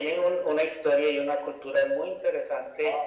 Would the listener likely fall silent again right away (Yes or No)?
Yes